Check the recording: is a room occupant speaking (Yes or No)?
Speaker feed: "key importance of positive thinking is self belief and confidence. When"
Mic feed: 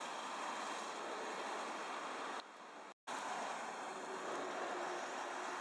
No